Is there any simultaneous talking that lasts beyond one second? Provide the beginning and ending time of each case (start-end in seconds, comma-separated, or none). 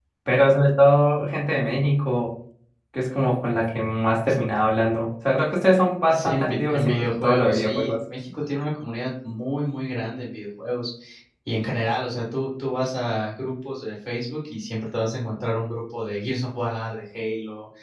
6.1-7.9